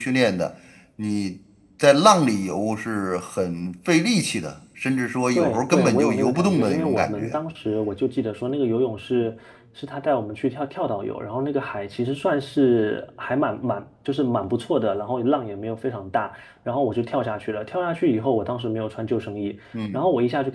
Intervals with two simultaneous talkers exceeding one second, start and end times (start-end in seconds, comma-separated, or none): 5.3-7.4